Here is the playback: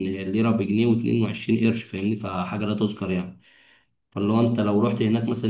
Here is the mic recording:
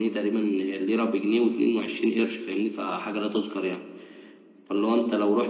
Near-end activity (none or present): none